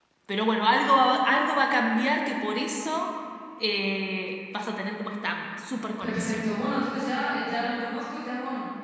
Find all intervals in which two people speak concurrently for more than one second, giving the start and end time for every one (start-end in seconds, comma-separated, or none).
none